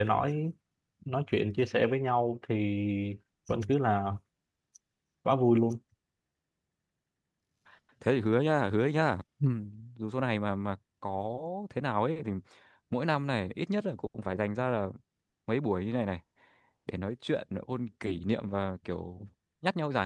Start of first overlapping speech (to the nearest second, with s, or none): none